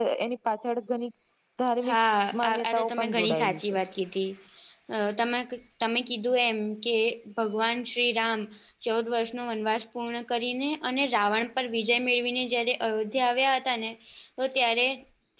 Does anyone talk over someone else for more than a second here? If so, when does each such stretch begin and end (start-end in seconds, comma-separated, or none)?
2.4-3.8